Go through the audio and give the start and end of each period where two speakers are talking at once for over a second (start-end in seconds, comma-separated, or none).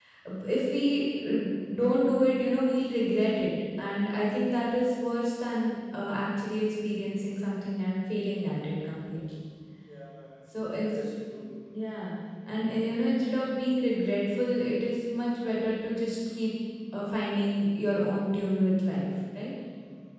none